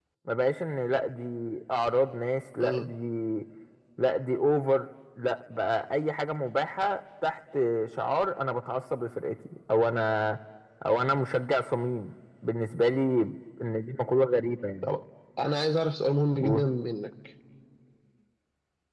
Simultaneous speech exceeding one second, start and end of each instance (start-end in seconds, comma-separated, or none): none